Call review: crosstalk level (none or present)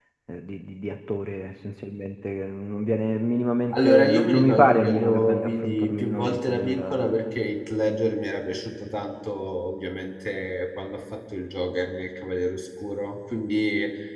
present